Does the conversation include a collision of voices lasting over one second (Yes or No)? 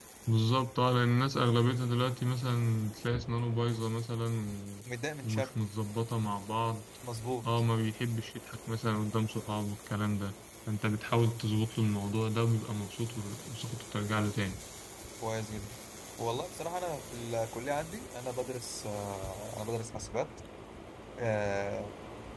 No